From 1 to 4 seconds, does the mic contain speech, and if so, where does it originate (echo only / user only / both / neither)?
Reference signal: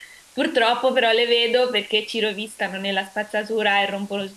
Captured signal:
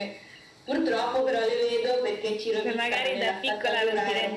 both